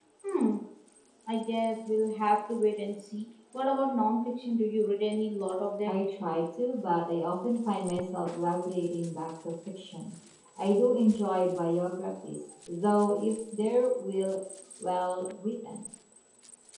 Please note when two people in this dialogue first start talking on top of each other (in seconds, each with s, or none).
none